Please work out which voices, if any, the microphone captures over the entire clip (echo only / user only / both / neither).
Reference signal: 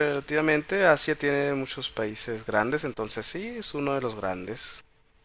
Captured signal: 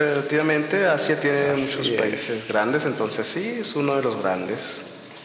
both